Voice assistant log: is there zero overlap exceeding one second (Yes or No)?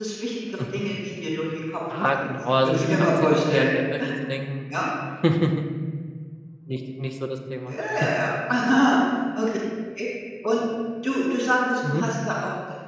No